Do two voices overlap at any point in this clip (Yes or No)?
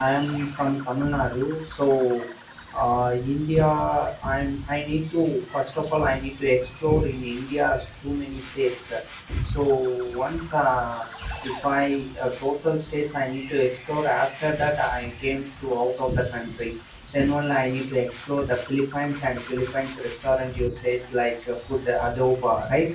No